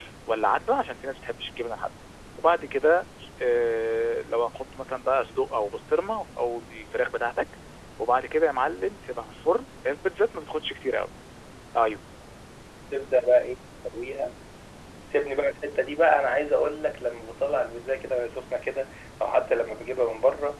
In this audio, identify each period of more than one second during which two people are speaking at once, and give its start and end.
none

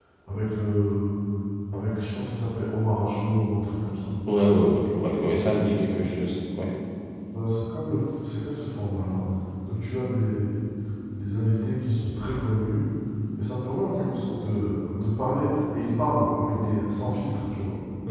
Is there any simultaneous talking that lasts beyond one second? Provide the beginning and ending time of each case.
none

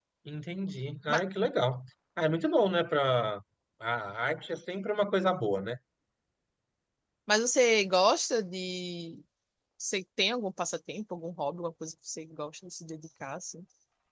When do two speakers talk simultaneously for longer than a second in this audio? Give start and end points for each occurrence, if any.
none

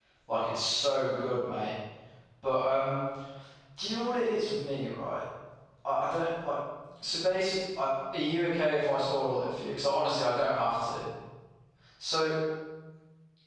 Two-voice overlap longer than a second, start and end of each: none

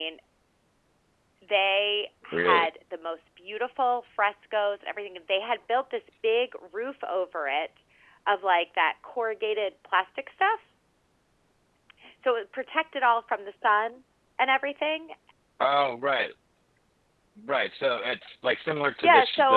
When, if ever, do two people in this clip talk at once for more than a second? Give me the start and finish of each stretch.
none

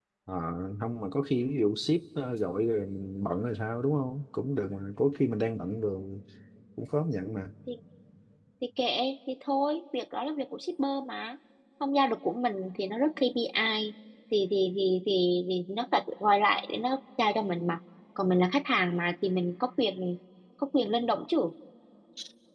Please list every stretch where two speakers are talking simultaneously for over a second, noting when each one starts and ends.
none

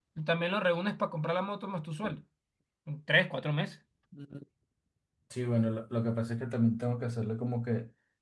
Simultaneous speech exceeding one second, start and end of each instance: none

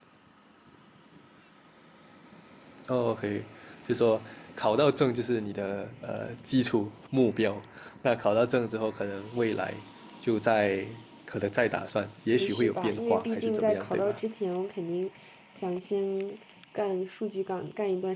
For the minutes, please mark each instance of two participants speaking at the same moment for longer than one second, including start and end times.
12.3-14.2

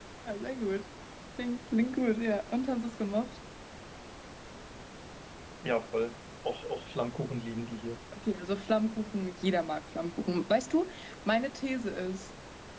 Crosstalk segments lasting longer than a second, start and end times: none

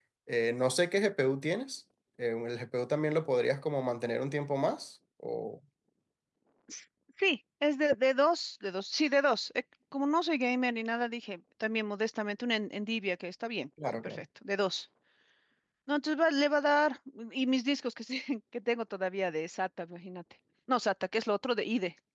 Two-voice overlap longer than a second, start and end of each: none

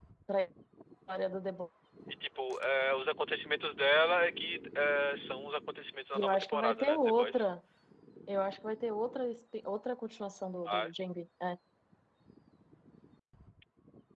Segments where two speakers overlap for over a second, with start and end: 6.2-7.4

